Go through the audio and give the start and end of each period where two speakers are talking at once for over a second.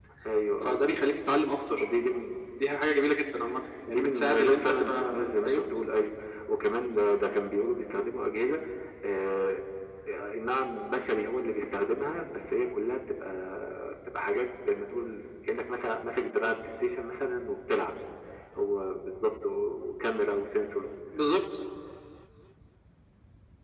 3.9-5.6

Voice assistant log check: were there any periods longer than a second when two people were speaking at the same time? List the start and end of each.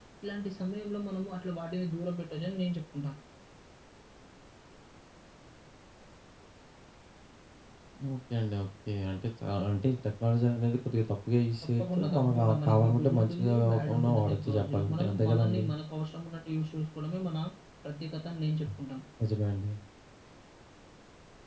11.6-15.7

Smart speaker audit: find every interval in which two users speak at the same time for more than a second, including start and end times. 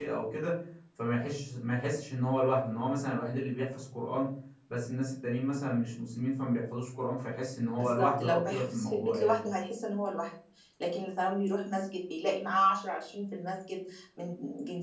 7.8-9.4

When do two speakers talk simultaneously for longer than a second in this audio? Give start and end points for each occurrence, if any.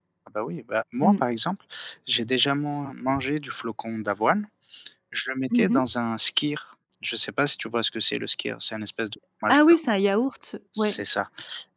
none

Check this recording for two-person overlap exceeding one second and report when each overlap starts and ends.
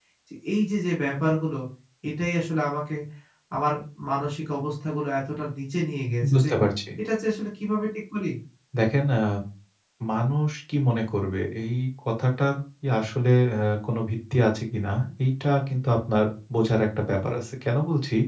none

